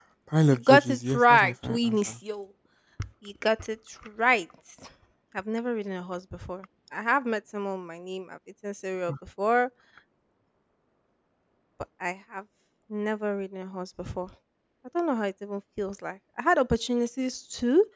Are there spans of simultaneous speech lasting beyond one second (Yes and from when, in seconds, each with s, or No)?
Yes, from 0.5 s